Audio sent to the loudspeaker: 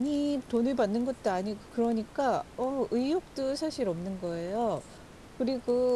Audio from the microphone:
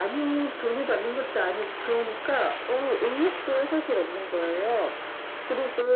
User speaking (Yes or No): No